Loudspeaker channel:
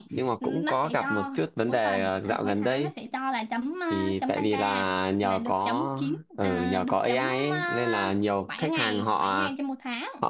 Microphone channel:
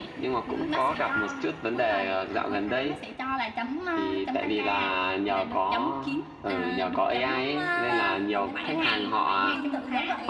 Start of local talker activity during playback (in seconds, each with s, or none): 7.3 s